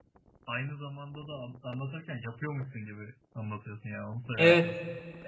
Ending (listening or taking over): taking over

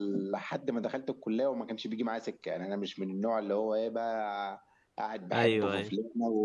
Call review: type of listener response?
listening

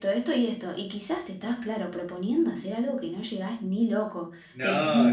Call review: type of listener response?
listening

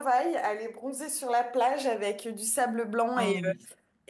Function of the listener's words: listening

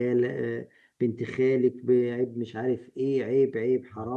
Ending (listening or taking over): listening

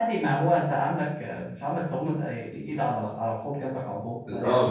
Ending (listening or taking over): taking over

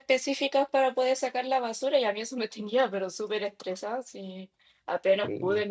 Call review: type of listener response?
listening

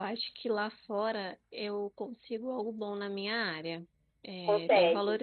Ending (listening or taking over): listening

